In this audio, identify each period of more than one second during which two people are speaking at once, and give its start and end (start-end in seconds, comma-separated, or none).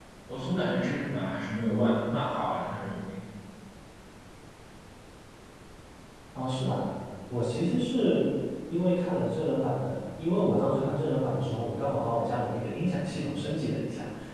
none